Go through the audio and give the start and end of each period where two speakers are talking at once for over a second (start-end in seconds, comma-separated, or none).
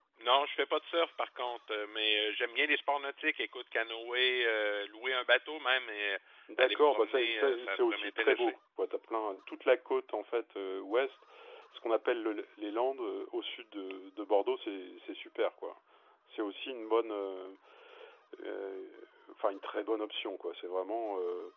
6.6-8.5